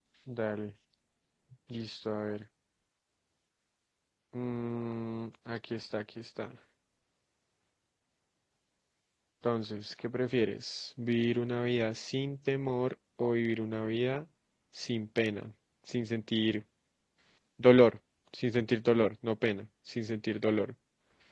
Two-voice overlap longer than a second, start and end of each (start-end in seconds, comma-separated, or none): none